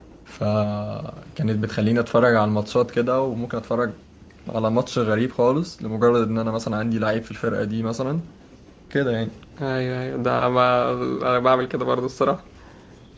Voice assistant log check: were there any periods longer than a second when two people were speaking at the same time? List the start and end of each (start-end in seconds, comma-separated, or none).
none